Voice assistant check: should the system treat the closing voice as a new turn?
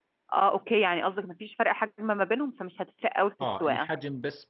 Yes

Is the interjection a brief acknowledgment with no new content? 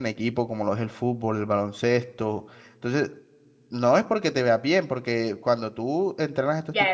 No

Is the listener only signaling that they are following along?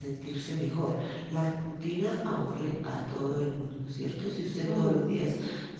Yes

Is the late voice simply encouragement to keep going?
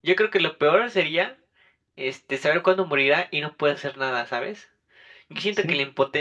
Yes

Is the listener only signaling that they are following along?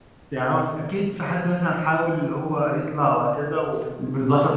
No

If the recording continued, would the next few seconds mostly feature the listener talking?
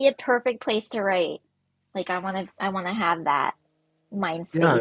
Yes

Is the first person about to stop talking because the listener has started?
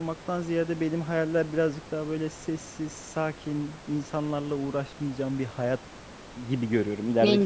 No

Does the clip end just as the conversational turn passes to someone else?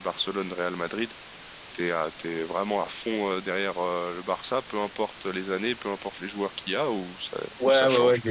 Yes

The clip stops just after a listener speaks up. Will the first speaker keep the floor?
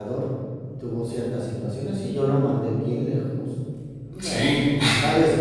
Yes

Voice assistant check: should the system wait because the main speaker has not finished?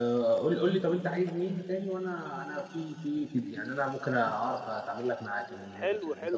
No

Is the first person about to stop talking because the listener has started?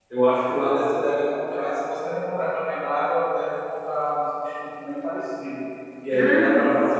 No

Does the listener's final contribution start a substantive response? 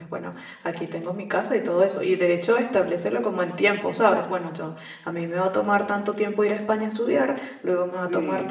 Yes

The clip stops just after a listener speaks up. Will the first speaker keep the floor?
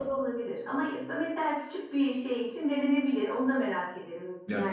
No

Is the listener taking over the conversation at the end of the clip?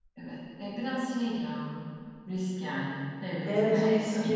Yes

